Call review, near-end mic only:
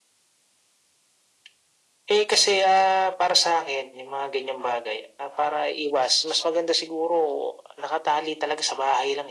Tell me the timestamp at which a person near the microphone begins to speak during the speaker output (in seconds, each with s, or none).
none